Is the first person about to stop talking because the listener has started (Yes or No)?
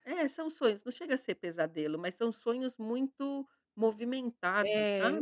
Yes